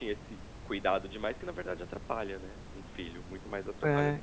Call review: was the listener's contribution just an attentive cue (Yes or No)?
No